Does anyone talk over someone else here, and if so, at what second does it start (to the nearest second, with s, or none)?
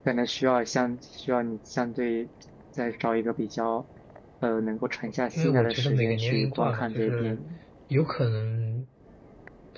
5 s